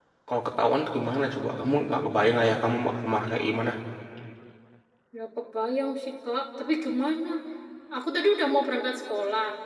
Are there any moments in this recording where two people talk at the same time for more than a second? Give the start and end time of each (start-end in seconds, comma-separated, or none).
none